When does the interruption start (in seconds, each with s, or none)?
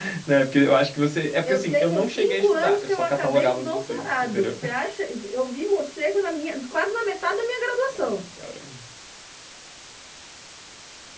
1.4 s